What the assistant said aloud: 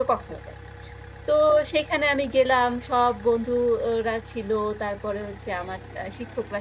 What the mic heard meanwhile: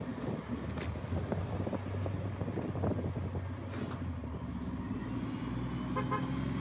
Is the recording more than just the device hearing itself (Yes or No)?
No